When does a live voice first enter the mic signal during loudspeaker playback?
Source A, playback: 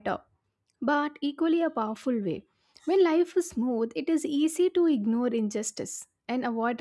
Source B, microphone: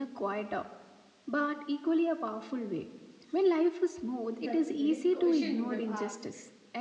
4.4 s

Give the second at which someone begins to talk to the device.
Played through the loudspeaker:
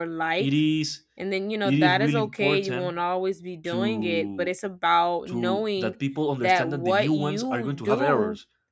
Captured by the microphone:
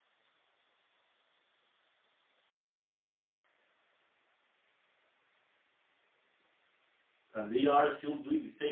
7.3 s

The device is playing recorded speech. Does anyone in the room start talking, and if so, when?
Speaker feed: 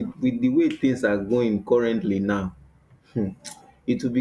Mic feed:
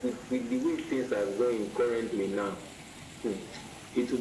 none

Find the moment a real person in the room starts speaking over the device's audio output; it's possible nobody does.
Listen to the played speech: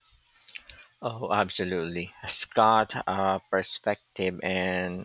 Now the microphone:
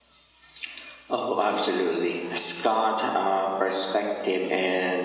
none

